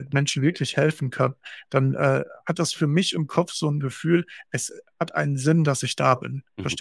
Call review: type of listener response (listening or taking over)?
taking over